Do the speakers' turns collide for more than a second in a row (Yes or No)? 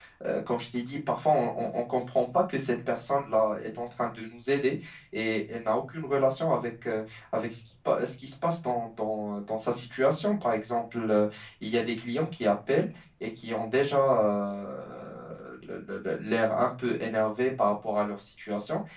No